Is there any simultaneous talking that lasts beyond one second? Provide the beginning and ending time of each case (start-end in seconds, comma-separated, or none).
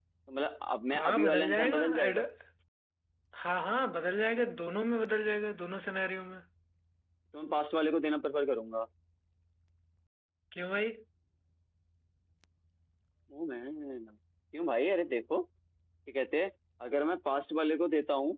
0.9-2.2